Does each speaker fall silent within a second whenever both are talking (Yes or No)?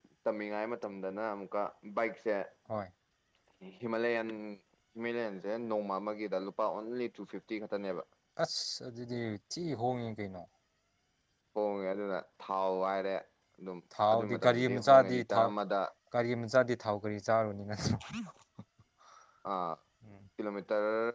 No